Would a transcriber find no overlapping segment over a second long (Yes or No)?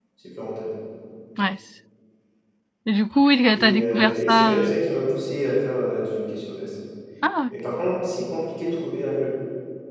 No